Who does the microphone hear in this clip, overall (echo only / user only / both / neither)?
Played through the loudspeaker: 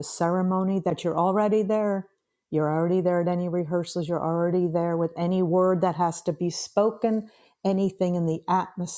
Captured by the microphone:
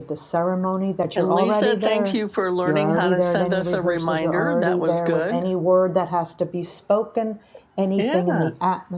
both